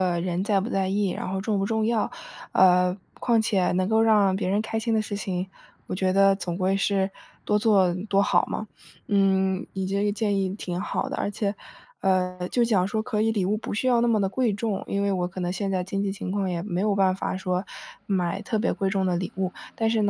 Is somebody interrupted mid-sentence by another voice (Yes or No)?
No